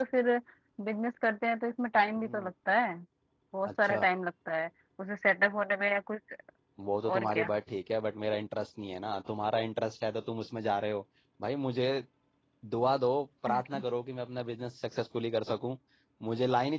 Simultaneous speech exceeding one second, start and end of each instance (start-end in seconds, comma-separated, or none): none